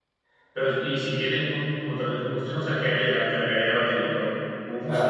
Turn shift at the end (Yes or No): Yes